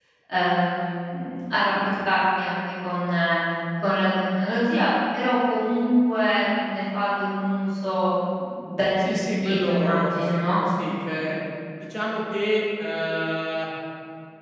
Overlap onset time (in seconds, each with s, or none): 9.0 s